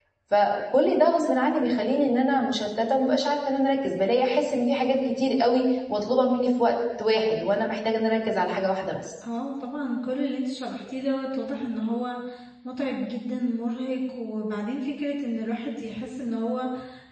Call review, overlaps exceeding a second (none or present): none